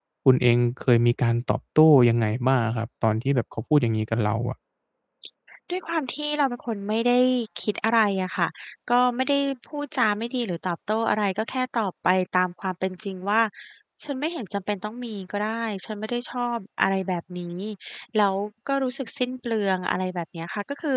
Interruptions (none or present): none